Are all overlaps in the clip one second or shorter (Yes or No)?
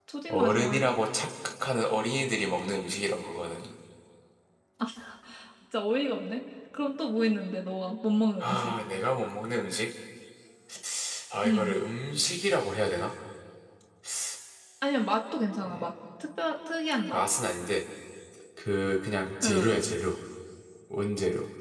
Yes